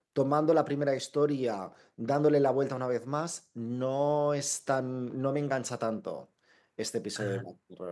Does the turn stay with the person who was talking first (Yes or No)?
Yes